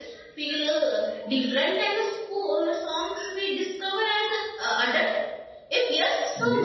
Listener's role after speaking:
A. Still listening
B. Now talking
B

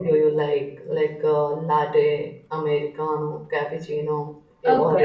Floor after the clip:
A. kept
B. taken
B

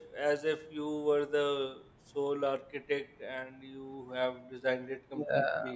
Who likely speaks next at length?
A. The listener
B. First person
A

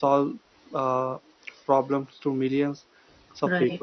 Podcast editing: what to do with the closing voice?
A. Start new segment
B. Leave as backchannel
B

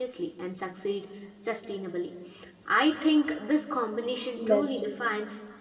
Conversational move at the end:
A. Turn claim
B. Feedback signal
B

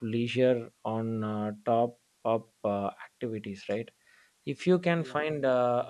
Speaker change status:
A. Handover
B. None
B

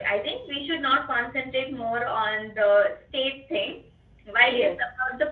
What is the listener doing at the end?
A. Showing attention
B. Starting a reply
A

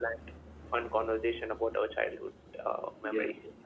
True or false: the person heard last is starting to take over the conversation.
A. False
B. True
B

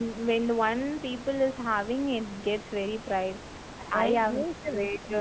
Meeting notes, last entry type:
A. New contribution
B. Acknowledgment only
A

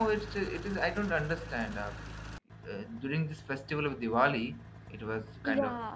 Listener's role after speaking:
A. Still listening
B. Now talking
A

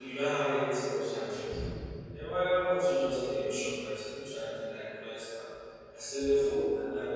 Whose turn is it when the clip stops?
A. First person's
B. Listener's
A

